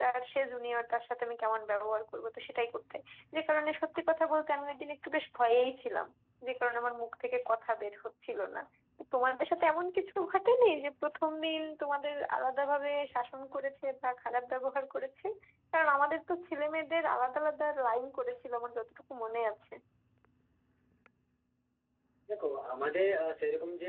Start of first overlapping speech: none

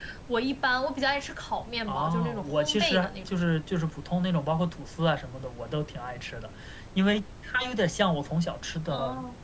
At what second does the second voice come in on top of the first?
1.9 s

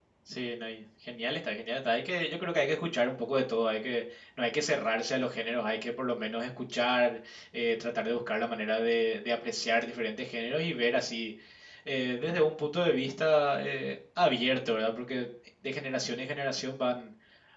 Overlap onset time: none

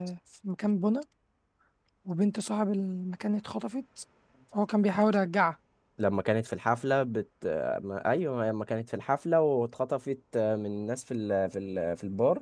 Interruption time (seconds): none

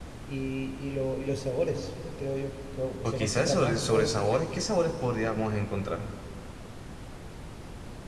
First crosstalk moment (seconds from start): 3.0 s

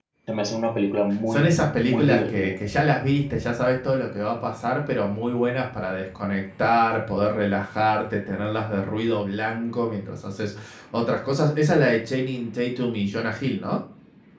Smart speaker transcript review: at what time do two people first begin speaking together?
1.3 s

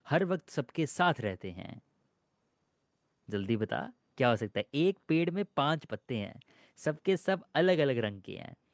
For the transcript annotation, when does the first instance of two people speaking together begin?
none

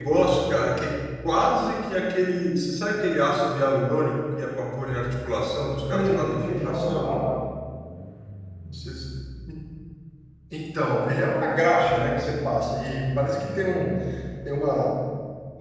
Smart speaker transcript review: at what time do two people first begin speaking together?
5.9 s

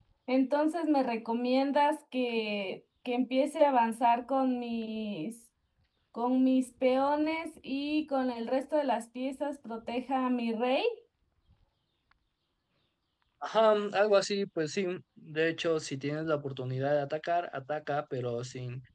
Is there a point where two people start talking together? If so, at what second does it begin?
none

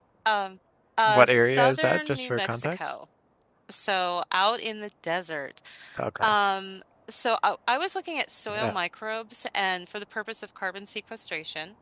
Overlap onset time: 1.1 s

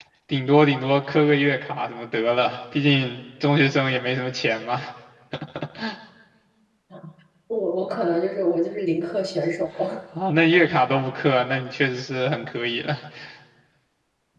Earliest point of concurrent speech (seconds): none

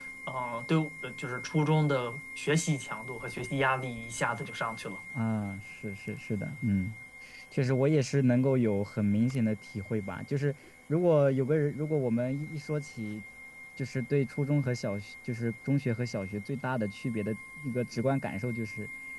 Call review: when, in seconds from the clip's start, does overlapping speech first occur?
none

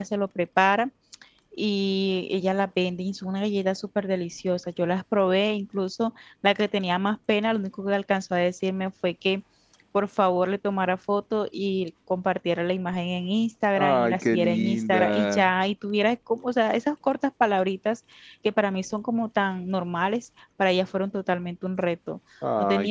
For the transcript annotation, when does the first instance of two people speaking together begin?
13.8 s

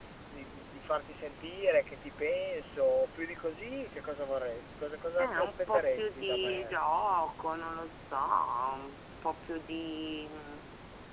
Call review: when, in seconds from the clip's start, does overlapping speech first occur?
5.2 s

